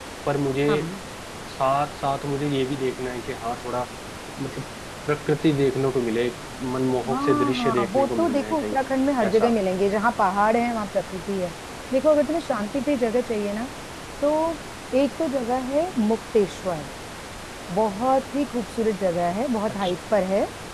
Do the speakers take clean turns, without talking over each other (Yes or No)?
No